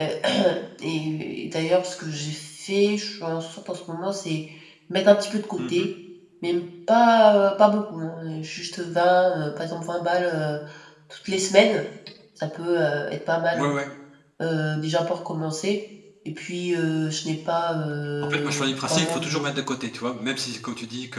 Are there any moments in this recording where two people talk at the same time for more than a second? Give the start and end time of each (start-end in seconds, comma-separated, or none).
18.2-19.6